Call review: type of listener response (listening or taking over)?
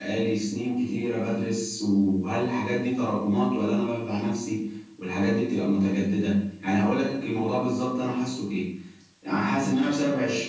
listening